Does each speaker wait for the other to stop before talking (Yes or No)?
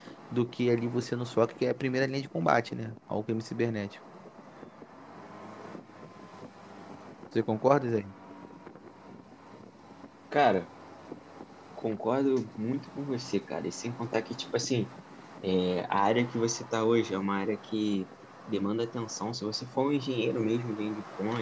Yes